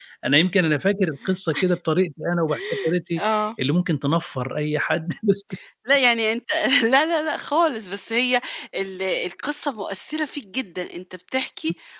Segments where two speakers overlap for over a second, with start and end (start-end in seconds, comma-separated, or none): none